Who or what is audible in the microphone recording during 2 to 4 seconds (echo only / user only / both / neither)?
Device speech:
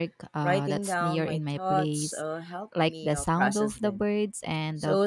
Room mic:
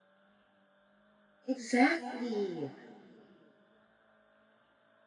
user only